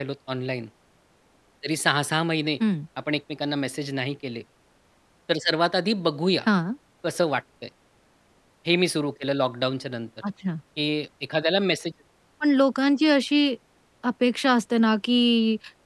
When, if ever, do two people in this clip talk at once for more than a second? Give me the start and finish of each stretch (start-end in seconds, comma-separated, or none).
none